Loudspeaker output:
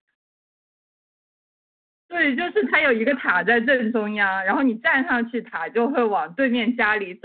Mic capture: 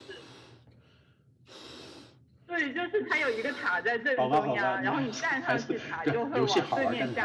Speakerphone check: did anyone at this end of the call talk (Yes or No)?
Yes